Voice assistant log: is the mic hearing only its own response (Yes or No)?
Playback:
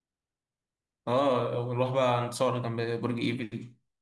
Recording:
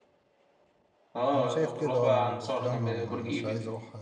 No